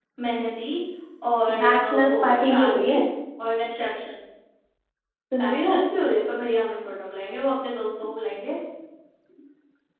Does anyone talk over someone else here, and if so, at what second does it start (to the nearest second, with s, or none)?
2 s